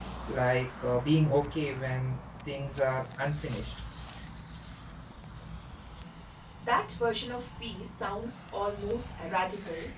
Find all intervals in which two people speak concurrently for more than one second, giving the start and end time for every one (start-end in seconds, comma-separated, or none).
none